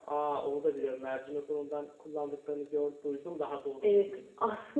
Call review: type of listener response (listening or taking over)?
taking over